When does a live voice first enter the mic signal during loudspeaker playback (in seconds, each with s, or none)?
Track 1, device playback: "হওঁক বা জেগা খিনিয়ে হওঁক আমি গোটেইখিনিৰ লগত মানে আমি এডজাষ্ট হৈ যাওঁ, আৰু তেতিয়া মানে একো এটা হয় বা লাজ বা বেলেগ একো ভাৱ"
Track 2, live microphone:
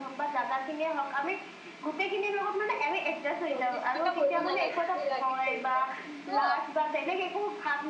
3.5 s